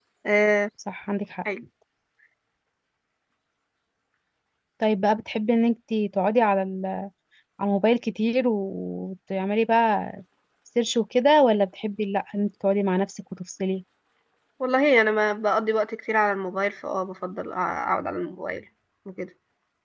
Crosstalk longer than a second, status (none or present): none